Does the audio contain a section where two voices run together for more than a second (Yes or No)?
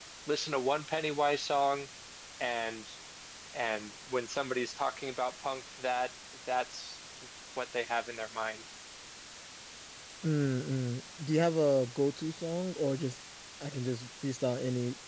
No